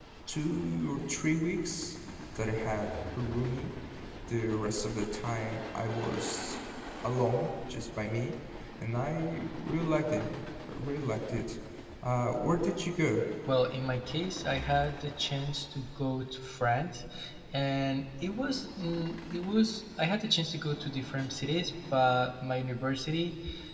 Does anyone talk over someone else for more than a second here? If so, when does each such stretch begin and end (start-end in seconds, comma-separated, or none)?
none